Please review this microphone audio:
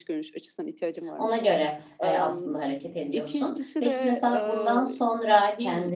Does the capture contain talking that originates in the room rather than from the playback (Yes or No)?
Yes